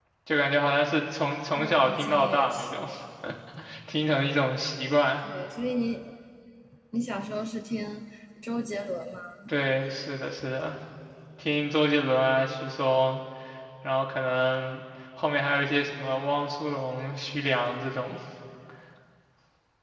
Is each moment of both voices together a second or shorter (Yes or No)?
No